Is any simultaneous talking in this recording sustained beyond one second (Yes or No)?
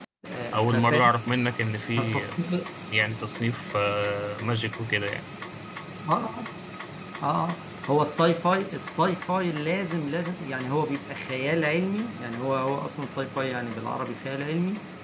No